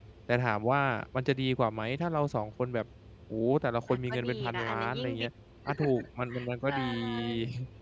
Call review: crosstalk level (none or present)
present